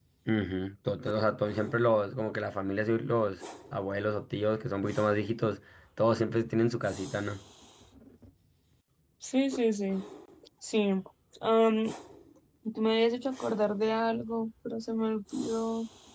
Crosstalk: none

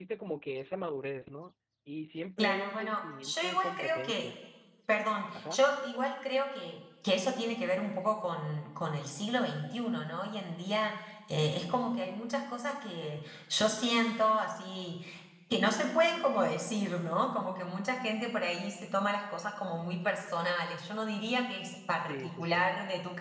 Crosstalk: present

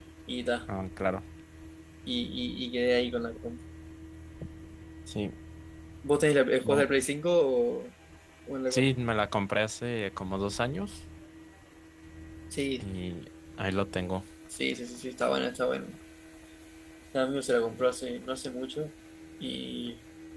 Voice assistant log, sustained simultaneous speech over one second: none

